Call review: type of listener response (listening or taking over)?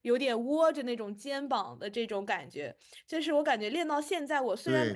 taking over